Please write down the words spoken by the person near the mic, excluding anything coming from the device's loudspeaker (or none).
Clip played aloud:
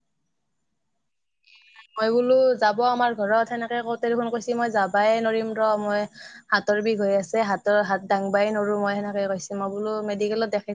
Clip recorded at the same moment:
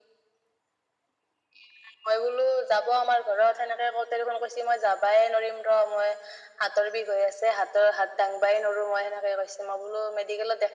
none